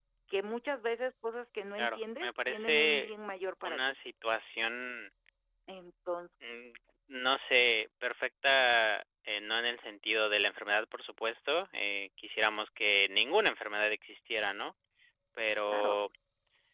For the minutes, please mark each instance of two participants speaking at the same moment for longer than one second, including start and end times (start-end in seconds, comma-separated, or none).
1.8-3.1